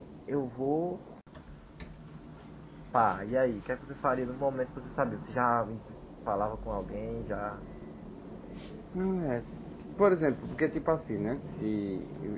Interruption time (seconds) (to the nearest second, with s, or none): none